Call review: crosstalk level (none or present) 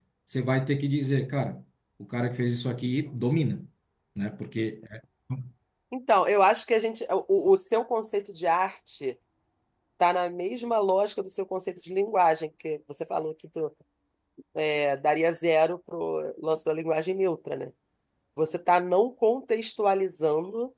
none